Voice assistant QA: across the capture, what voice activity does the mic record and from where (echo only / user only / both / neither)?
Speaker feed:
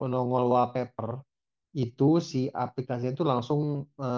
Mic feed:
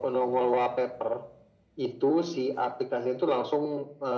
echo only